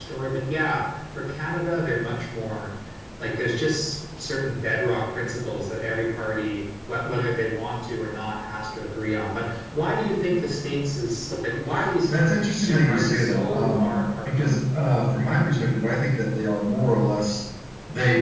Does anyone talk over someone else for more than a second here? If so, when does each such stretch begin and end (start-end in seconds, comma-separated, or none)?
12.6-14.3